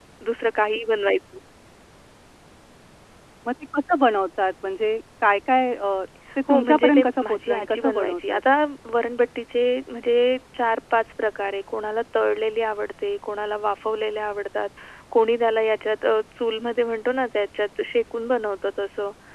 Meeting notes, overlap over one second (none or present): present